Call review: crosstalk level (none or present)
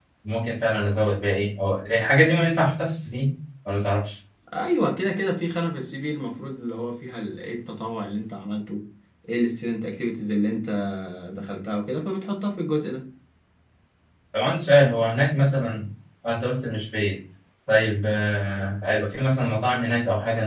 none